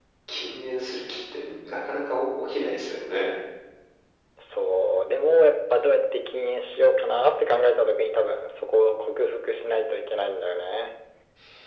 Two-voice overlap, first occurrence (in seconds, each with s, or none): none